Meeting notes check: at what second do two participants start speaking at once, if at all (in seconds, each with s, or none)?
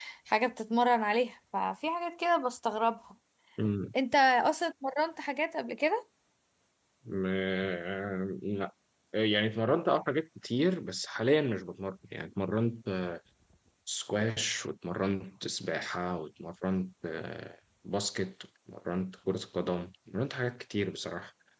none